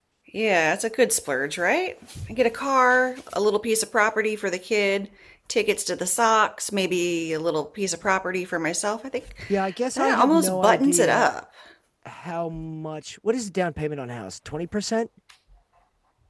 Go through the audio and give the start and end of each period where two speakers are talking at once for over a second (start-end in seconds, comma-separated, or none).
10.0-11.3